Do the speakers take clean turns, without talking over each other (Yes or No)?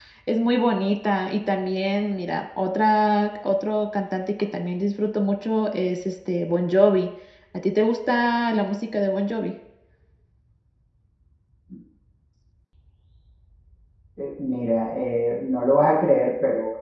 Yes